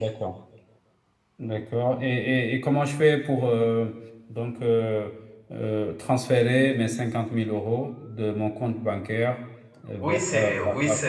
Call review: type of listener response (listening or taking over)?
taking over